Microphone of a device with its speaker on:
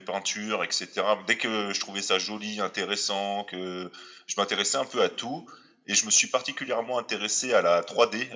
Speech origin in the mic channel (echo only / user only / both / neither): echo only